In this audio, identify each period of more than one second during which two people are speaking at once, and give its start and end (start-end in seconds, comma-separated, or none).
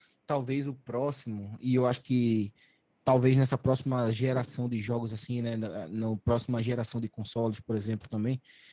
none